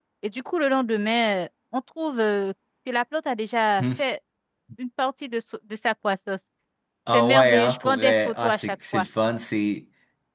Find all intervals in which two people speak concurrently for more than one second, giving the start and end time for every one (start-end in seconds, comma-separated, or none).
7.1-9.1